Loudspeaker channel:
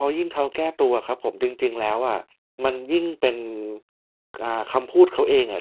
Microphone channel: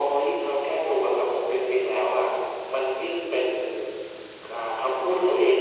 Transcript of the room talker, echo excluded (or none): none